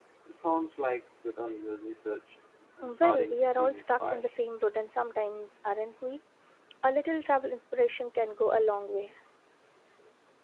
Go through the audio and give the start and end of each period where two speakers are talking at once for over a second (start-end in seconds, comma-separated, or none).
2.8-4.3